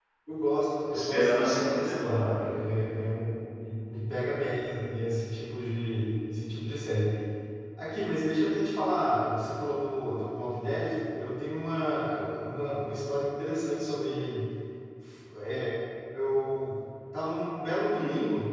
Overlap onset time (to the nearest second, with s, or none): 1 s